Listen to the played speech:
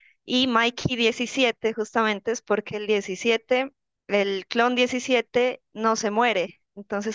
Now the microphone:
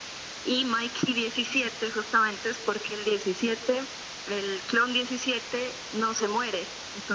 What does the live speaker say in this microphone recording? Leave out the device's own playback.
none

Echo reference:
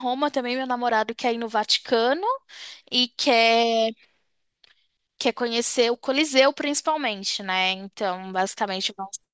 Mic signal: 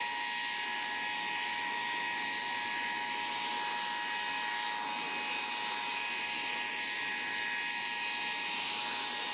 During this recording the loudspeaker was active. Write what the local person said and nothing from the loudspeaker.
none

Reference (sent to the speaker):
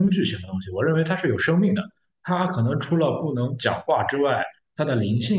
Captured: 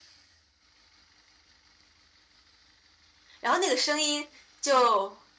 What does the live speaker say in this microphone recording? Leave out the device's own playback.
然后那个声音就

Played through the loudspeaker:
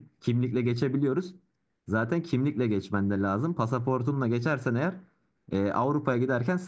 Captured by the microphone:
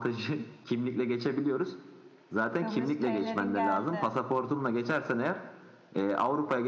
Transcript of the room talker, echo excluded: Kıbrıs perilerin geldi.

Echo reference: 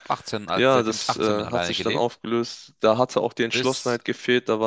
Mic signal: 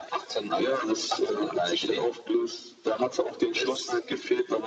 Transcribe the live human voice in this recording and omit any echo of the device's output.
none

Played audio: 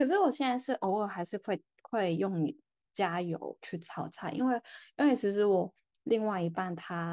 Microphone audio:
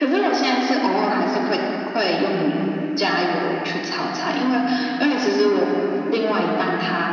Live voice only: none

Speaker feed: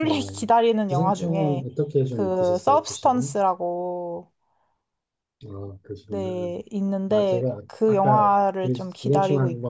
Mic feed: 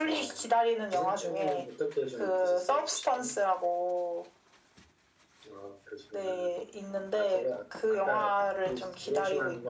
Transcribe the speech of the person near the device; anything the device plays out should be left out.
none

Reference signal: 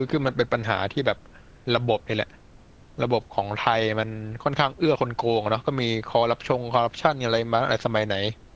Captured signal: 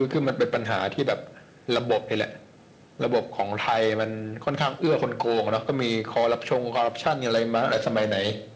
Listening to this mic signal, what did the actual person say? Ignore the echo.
none

